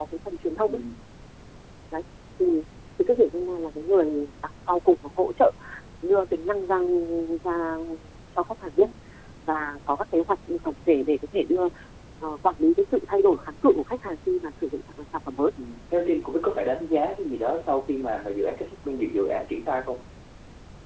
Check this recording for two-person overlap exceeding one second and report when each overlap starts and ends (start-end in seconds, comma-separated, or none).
none